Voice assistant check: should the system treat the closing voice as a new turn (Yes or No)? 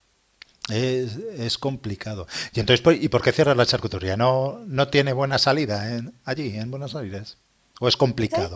Yes